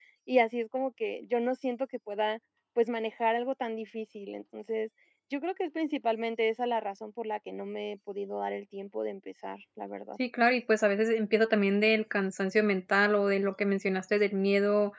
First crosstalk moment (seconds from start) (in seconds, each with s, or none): none